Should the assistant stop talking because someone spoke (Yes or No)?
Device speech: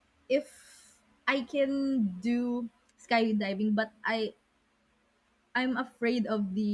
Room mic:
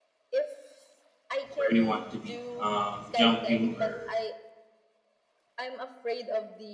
Yes